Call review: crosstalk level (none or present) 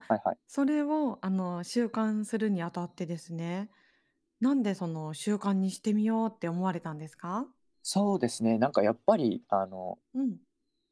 none